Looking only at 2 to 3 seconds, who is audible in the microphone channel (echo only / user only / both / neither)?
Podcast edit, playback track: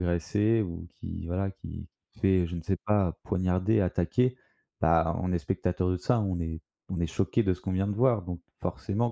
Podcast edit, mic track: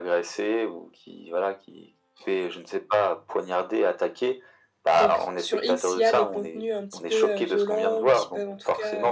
echo only